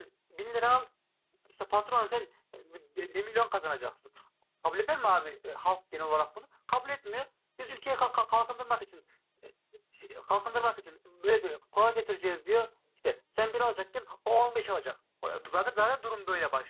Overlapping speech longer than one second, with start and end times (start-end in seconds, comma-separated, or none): none